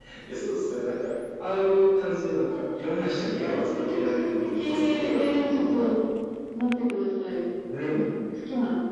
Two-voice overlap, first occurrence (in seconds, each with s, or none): 3.3 s